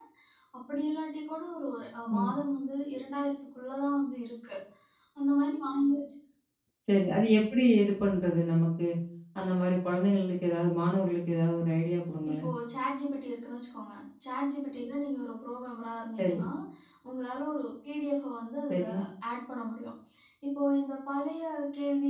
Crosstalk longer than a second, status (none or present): none